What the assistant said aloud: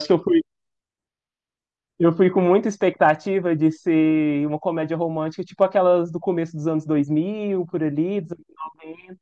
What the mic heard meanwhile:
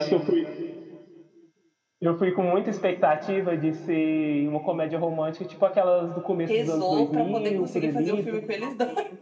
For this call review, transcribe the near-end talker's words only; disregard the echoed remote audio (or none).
rezou pra poder conseguir fazer o filme com eles dois.